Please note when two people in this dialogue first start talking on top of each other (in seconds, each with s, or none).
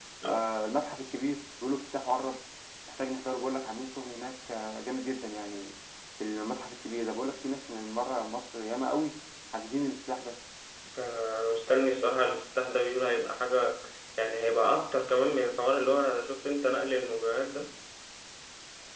none